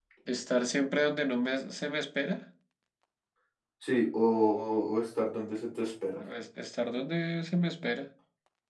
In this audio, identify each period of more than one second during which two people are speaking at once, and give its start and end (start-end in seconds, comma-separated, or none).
none